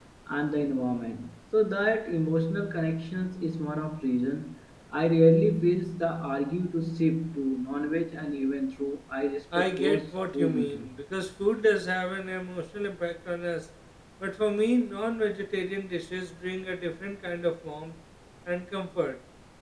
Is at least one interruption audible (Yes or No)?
Yes